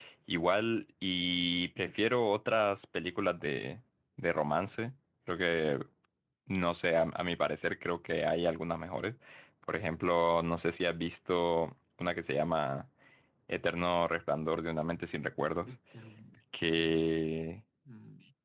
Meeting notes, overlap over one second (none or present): none